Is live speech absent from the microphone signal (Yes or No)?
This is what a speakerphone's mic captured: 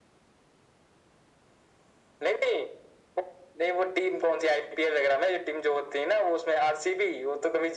Yes